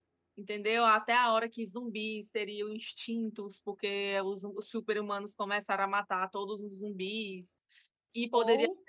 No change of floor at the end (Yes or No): Yes